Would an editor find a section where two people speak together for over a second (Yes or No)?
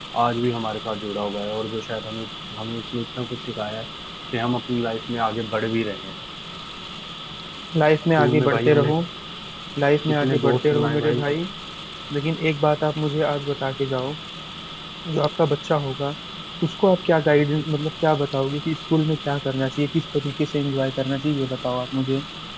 Yes